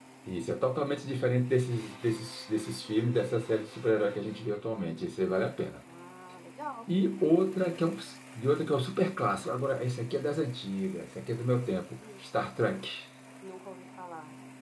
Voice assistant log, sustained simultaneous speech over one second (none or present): none